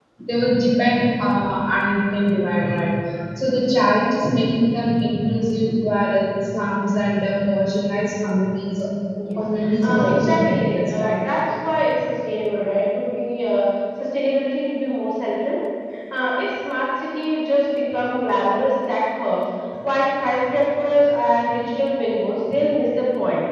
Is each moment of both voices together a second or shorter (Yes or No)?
No